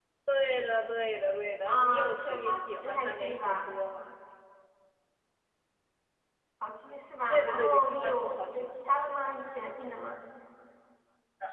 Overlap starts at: 2 s

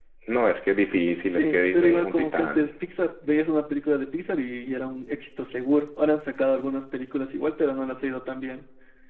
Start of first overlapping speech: 1 s

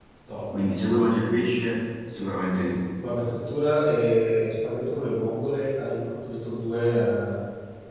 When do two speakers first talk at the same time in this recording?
none

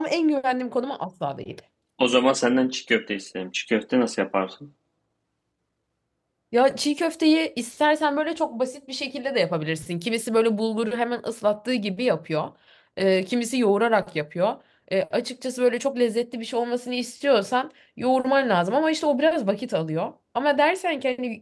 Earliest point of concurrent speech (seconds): none

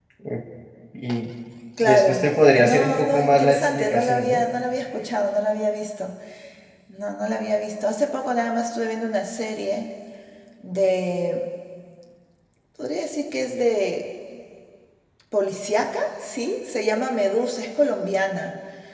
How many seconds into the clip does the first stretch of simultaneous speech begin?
2 s

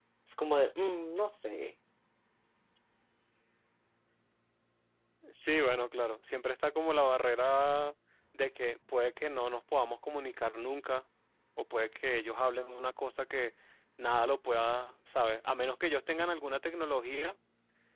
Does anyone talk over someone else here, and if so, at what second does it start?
none

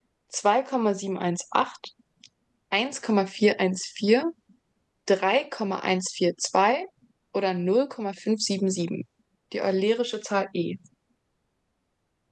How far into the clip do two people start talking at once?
none

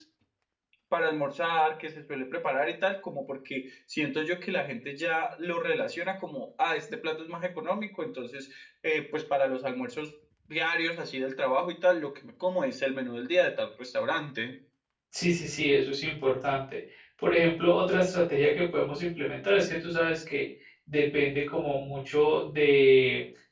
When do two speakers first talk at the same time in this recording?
none

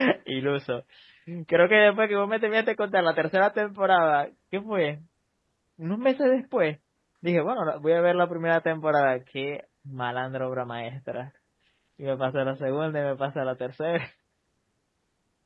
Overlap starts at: none

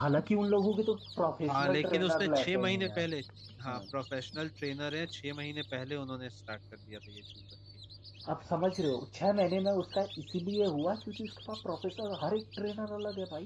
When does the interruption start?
1 s

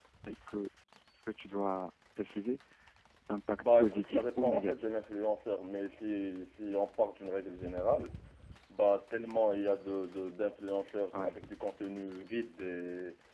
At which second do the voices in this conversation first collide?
4 s

